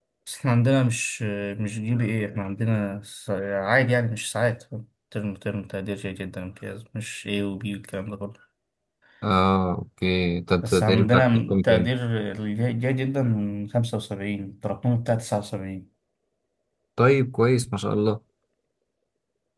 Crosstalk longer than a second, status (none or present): present